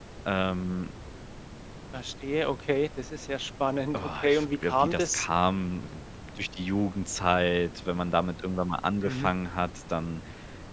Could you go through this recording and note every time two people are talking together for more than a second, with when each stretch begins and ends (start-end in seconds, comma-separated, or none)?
4.0-5.3